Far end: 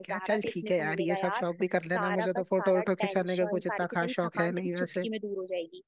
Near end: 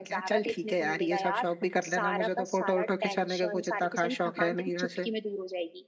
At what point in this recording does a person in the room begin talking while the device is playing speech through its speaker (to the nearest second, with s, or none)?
none